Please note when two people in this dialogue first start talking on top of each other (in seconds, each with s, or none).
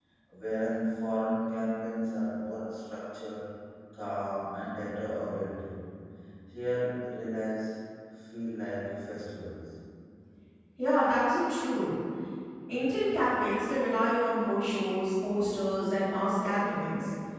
none